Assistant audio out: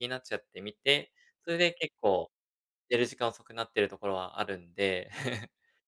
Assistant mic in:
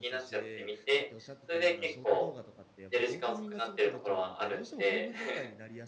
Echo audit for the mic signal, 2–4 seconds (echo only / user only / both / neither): both